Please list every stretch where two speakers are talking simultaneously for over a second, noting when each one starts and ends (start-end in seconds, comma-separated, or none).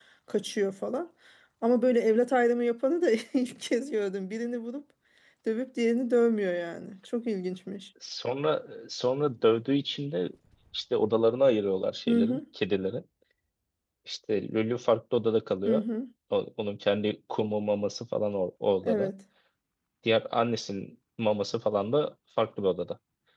none